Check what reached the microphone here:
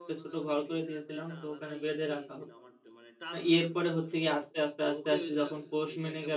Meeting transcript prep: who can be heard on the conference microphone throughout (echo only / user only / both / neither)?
both